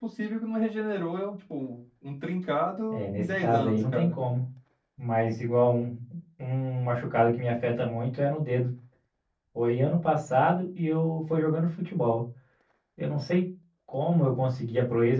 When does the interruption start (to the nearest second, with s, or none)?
3 s